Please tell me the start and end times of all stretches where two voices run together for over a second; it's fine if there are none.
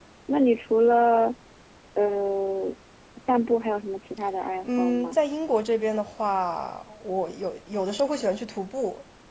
none

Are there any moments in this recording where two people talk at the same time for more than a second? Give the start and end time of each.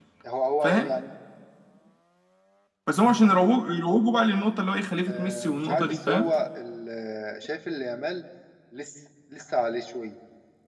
5.1-6.3

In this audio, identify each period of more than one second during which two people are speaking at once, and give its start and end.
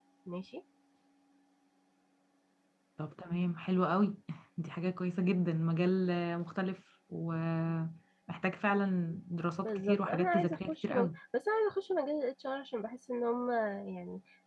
9.6-11.1

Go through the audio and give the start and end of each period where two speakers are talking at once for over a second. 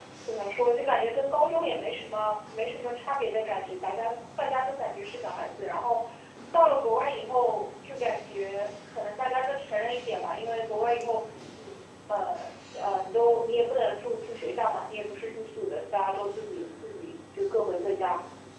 none

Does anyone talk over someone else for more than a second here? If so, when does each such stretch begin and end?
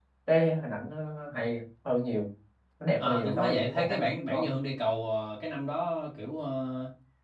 3.0-4.4

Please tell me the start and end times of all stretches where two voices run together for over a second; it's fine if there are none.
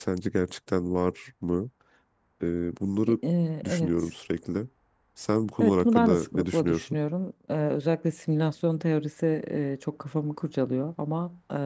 5.6-7.0

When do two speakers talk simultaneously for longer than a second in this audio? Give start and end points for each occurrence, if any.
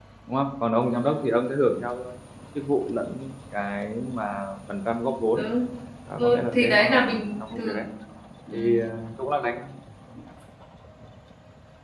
6.2-7.8

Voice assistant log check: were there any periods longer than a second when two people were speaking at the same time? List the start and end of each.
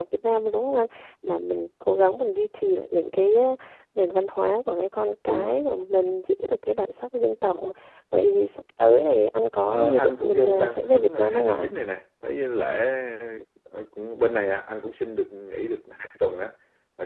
9.7-11.7

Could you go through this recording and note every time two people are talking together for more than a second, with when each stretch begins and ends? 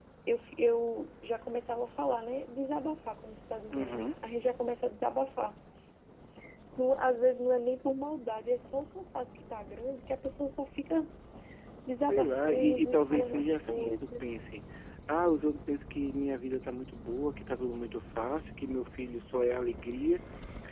12.1-14.3

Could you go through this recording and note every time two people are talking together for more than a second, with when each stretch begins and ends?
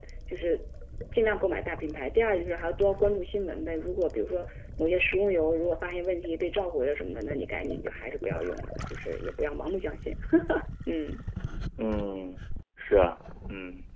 none

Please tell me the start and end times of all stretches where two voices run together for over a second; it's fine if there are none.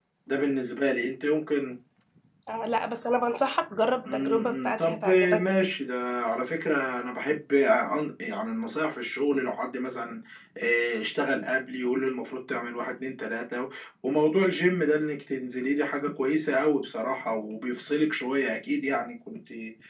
4.1-5.5

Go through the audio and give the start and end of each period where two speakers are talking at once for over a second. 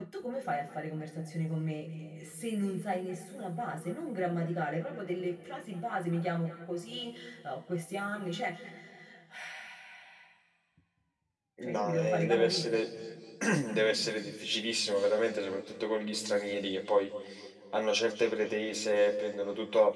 11.6-12.8

